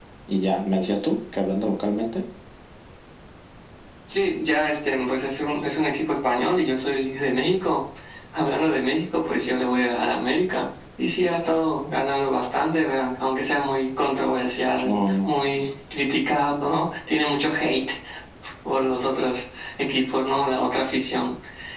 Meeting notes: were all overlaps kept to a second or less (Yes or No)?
Yes